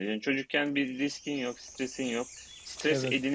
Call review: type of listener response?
listening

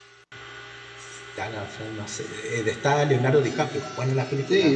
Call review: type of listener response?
taking over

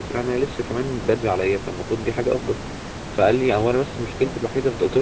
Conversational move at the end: listening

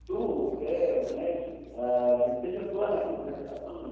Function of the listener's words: listening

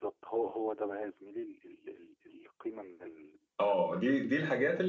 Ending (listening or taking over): taking over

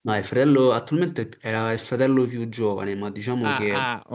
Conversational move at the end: taking over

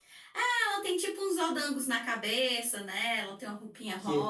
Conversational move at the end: taking over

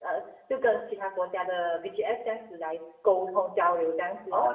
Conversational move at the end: taking over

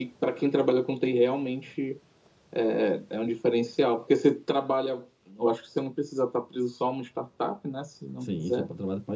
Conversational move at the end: taking over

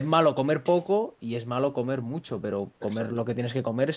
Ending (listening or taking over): listening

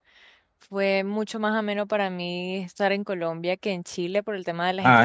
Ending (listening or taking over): taking over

